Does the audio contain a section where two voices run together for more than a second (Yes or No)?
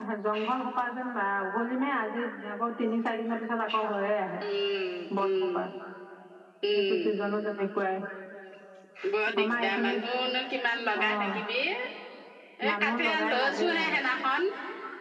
Yes